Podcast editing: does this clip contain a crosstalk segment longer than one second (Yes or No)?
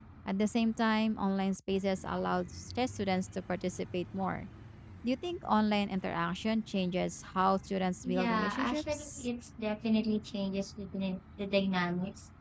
Yes